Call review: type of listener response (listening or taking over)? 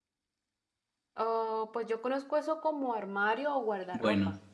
taking over